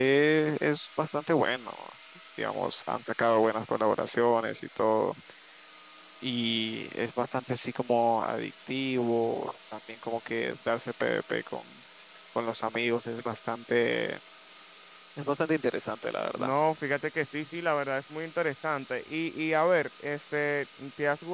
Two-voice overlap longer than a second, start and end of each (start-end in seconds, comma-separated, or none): none